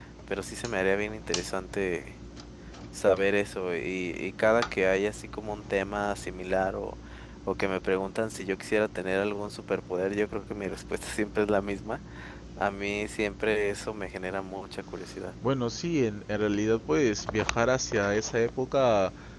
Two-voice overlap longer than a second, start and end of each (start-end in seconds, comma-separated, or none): none